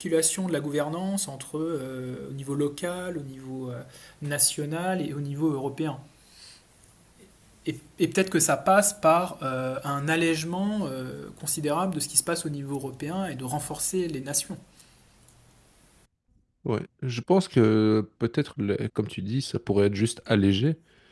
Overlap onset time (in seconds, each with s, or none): none